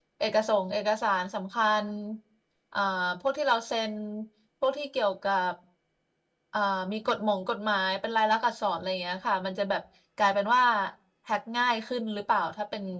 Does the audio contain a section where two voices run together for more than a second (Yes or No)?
No